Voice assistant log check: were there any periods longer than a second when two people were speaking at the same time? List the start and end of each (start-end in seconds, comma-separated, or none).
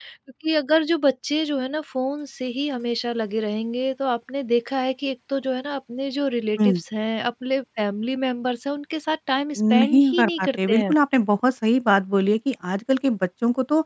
9.6-10.9